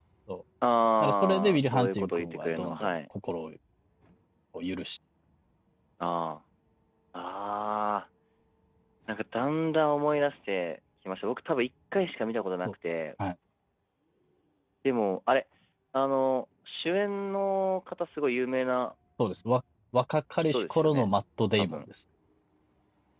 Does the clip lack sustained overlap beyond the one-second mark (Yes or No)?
No